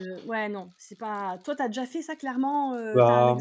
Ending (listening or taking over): taking over